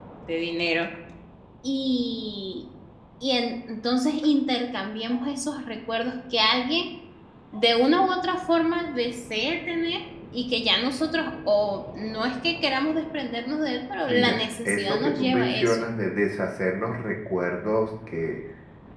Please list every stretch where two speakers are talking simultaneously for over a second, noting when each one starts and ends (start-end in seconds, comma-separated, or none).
14.1-15.8